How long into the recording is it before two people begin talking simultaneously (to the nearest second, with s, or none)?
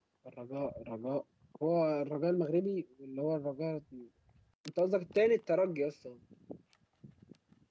none